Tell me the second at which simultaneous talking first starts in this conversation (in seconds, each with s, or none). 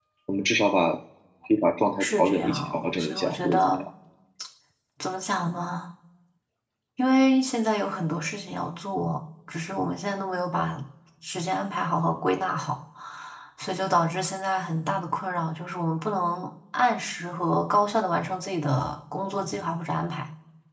2.0 s